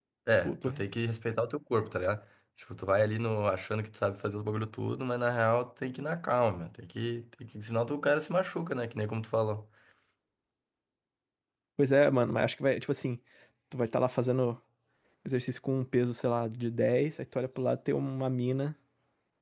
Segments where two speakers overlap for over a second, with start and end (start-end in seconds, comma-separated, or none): none